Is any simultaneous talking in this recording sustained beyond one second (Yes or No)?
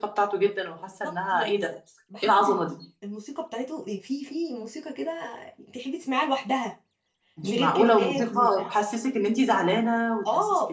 Yes